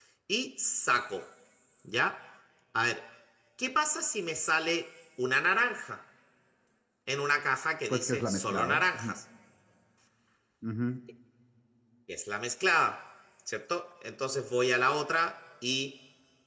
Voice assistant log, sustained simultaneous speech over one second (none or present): present